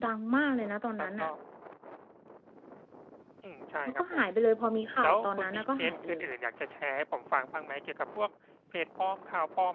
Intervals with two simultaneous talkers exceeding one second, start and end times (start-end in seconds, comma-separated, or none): 5.0-6.3